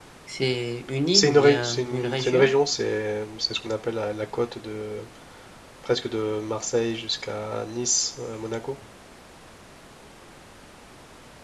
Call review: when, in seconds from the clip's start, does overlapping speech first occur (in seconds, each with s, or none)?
1.1 s